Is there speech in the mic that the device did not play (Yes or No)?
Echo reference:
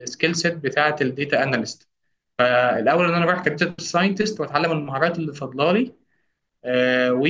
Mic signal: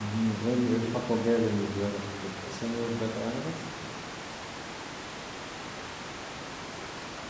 Yes